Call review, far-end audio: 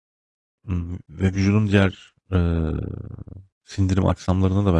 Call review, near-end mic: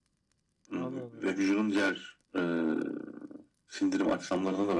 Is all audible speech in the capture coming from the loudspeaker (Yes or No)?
No